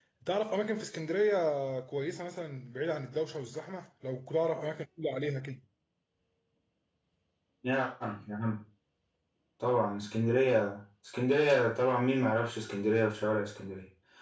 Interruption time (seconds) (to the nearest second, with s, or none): none